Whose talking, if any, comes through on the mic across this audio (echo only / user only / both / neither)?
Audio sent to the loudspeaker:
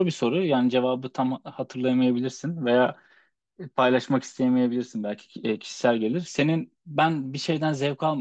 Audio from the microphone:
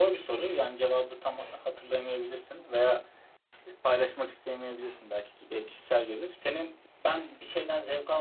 echo only